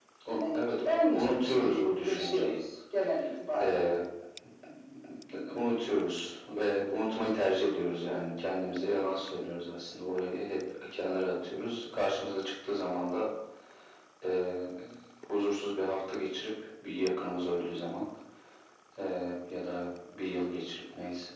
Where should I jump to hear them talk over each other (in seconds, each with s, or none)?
0.5 s